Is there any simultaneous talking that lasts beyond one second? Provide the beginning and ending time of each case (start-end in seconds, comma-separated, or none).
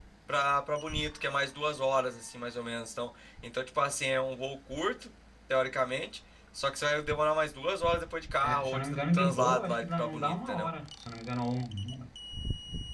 8.4-10.7